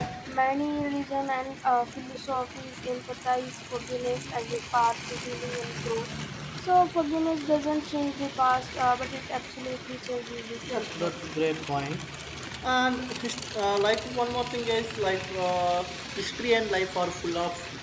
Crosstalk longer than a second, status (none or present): none